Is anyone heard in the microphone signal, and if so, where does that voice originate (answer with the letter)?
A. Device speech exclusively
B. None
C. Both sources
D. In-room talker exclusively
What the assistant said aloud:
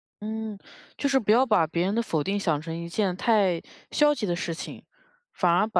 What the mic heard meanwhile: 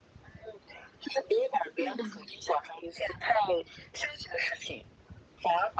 C